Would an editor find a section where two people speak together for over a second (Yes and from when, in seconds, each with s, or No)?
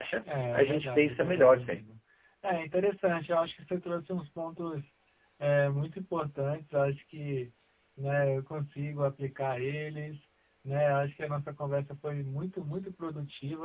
Yes, from 0.5 s